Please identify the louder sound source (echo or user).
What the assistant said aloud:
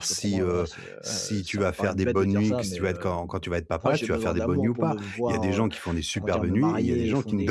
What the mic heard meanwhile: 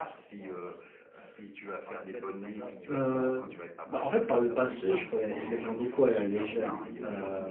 user